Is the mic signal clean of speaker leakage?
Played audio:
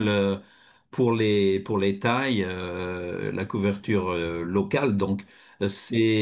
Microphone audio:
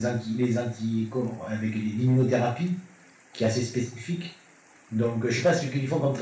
Yes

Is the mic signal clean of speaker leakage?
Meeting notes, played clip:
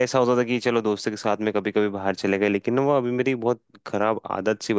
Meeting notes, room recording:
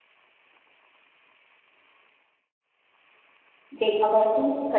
Yes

